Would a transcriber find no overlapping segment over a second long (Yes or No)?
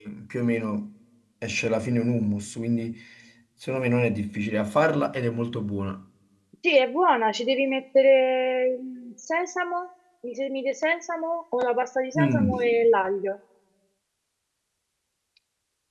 Yes